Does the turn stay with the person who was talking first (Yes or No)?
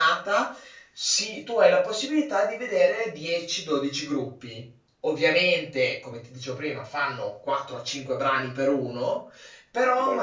Yes